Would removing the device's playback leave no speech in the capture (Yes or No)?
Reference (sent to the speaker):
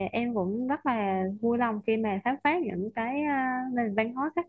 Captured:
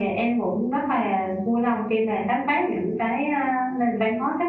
Yes